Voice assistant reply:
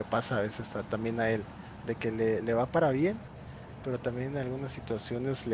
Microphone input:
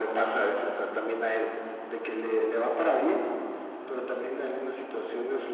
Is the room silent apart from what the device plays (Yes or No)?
Yes